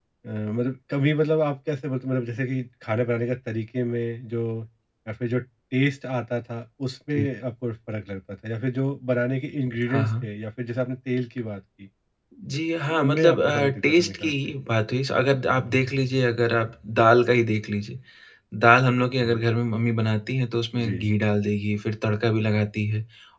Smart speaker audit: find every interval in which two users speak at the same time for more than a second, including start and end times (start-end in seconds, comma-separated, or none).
13.0-14.3